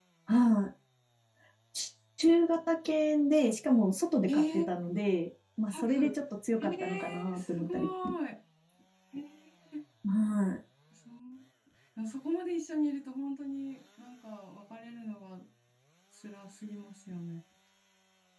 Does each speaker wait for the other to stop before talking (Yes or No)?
No